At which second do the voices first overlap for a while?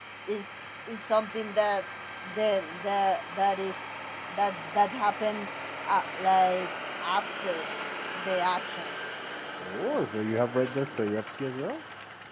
none

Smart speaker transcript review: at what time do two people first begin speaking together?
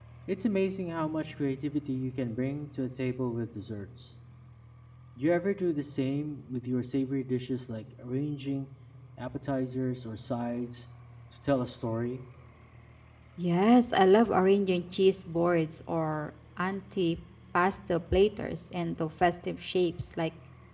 none

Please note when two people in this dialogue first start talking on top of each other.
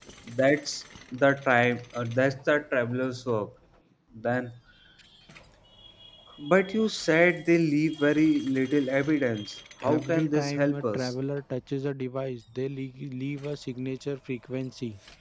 9.8 s

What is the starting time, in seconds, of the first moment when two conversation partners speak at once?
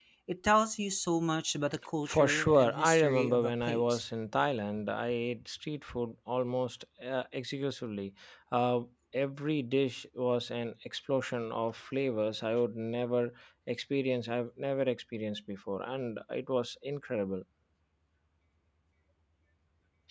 2.1 s

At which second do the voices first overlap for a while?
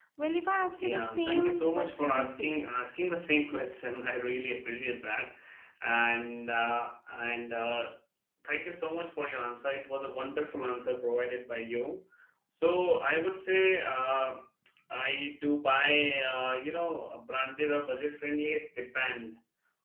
0.8 s

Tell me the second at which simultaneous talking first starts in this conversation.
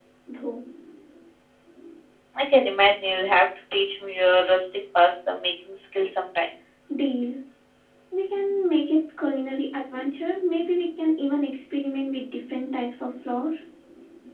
none

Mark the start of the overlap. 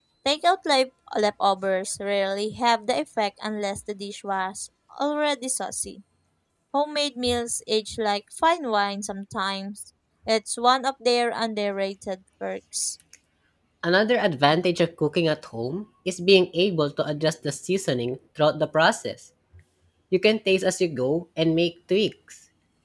none

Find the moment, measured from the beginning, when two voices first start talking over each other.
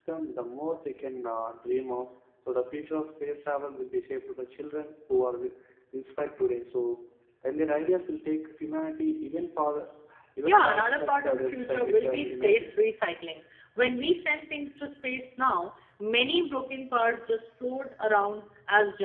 10.4 s

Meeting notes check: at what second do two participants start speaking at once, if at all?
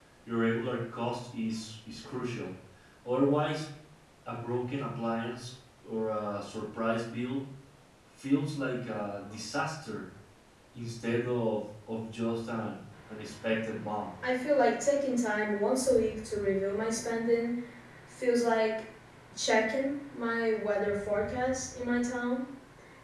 none

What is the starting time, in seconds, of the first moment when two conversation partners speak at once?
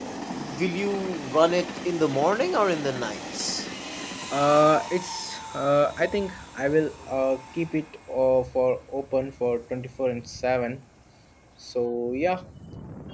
none

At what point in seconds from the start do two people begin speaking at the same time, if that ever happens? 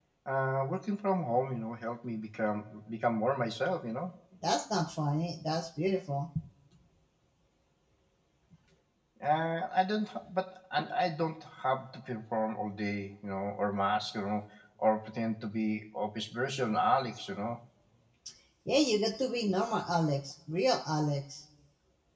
none

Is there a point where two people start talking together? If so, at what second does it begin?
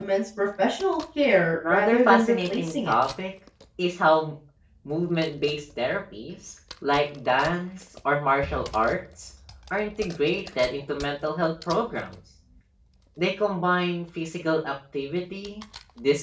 1.6 s

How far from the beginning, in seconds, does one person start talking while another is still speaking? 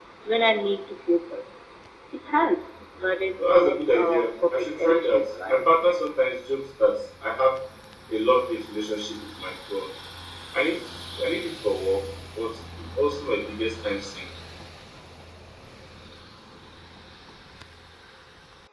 3.4 s

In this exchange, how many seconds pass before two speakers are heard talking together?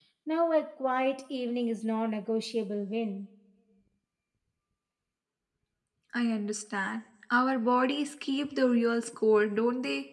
none

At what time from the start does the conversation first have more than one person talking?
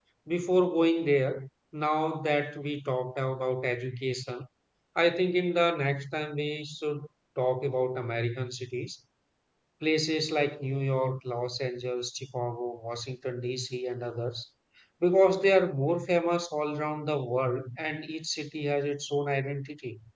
none

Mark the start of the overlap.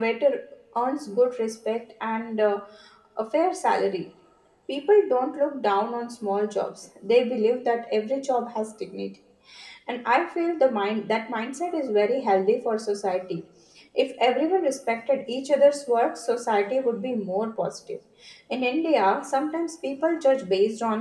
none

